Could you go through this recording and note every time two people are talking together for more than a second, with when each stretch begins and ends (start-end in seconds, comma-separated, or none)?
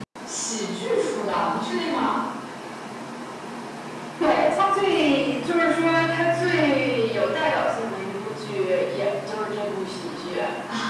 none